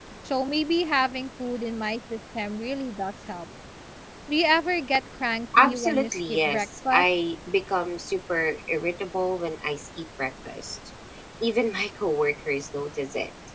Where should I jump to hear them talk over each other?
5.5 s

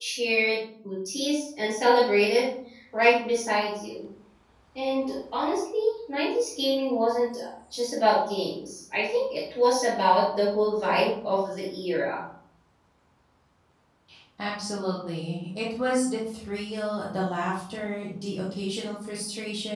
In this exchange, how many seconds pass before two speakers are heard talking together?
none

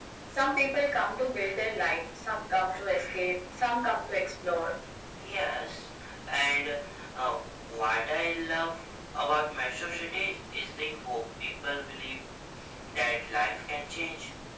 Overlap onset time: none

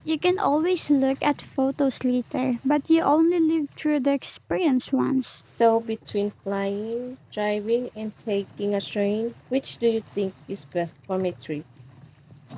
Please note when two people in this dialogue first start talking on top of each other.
none

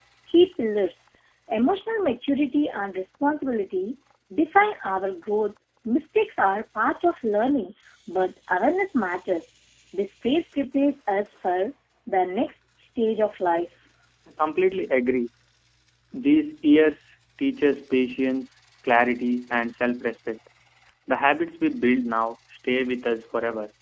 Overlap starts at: none

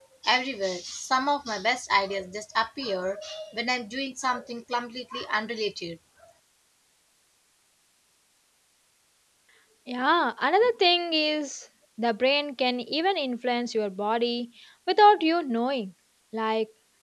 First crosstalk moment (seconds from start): none

